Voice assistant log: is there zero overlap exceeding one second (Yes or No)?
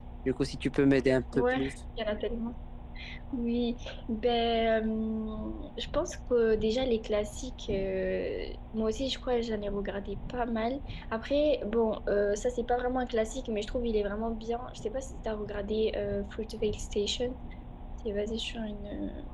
Yes